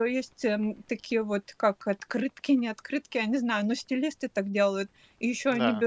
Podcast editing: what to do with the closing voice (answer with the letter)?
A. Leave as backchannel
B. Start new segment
A